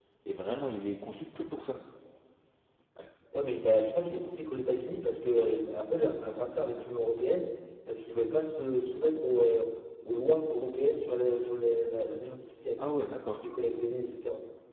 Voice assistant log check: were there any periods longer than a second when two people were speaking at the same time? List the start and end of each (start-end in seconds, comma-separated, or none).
none